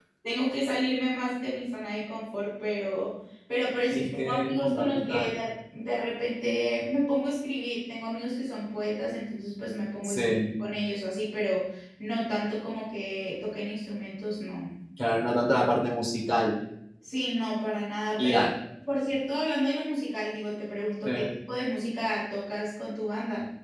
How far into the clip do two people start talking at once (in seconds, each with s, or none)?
3.9 s